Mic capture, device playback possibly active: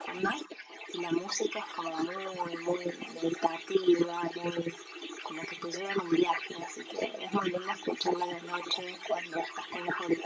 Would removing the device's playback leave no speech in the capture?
Yes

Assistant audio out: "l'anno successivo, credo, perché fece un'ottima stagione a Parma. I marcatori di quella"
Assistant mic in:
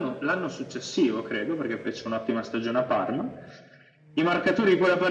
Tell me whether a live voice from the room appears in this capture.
No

